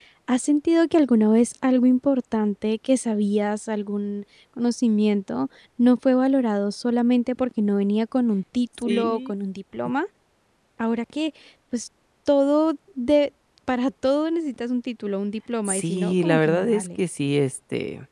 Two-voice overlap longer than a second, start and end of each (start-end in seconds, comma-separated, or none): 15.7-16.9